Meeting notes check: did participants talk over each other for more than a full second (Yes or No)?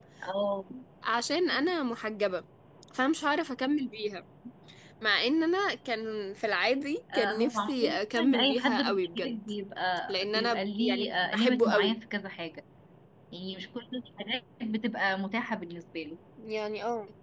Yes